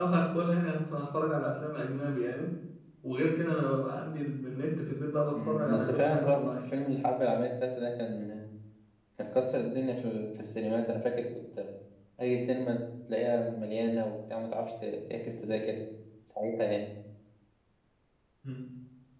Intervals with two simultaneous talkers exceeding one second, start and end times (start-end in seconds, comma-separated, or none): 5.3-6.6